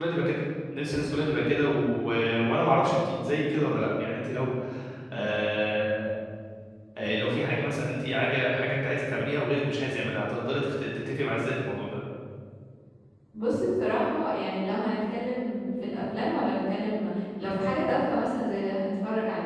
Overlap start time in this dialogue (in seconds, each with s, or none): none